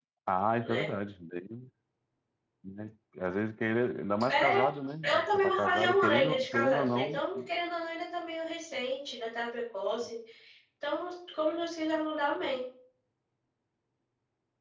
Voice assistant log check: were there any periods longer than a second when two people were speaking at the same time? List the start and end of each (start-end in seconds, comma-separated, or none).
5.1-7.2